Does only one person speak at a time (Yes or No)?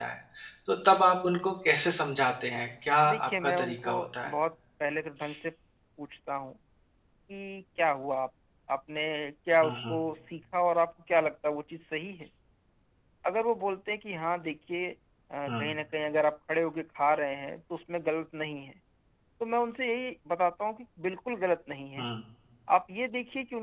No